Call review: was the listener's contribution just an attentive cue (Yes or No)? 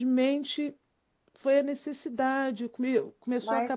Yes